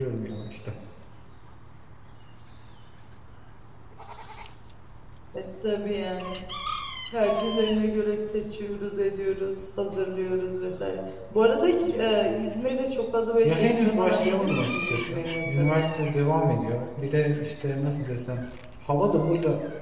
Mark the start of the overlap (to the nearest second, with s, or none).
13 s